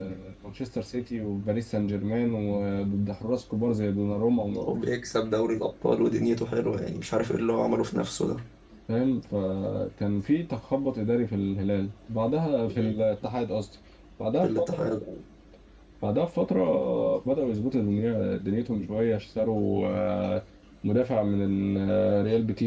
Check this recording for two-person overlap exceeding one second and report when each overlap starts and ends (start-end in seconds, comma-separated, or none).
none